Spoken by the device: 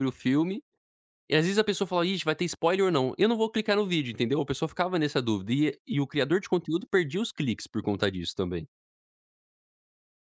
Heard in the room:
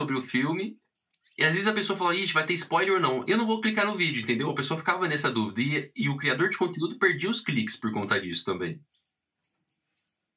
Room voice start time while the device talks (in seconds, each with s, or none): none